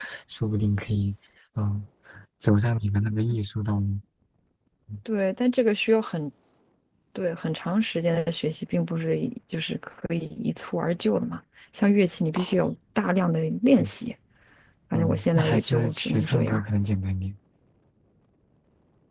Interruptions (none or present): present